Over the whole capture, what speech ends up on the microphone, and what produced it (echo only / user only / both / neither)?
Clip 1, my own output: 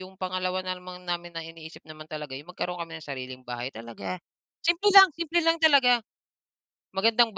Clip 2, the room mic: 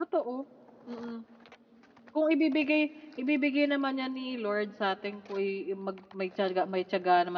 user only